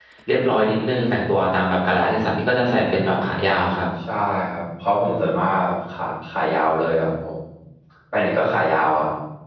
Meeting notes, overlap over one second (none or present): none